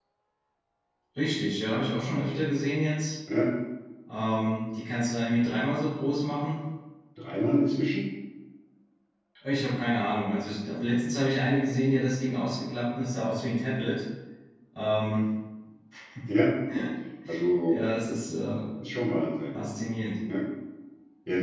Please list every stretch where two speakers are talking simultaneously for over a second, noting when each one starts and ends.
none

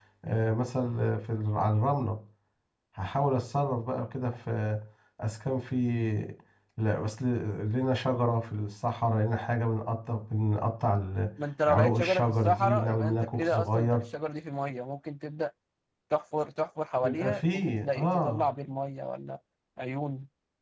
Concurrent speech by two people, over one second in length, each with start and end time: 11.7-14.0, 17.0-18.4

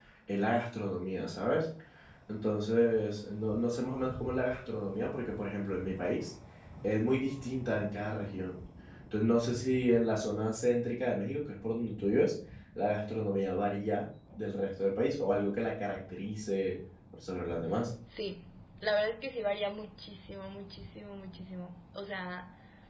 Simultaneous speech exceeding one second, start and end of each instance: none

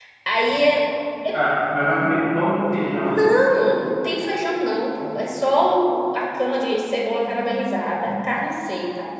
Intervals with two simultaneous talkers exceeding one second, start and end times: none

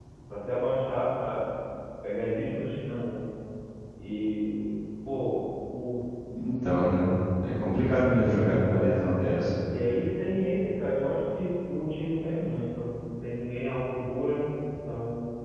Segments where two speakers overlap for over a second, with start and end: none

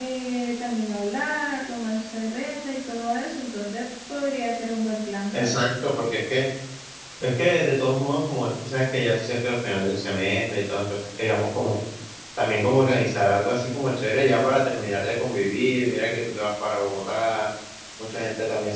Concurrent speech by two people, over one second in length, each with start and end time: none

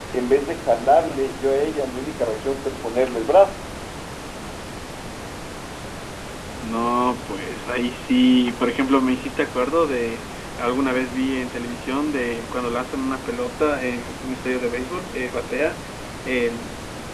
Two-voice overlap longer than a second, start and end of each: none

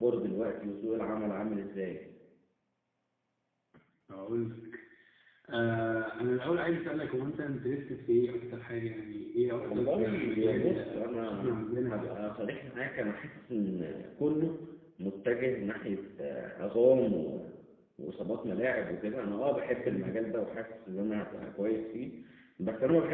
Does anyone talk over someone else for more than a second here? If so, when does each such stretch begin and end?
9.6-12.3

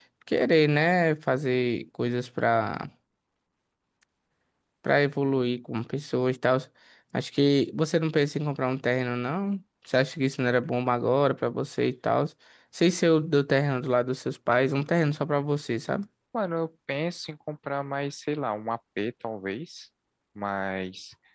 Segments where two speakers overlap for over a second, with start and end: none

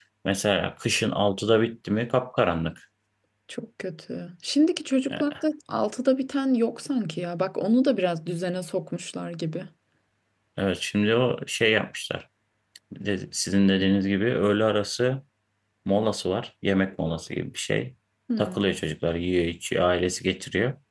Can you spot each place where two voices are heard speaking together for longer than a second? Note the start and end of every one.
none

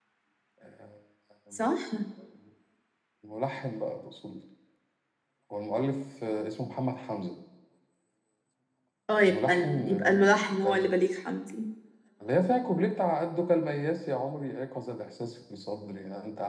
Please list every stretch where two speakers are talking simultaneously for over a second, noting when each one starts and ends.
9.2-10.9

